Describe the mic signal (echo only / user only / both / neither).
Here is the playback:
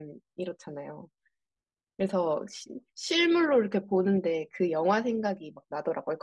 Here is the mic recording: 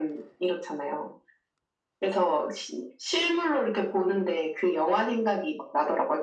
echo only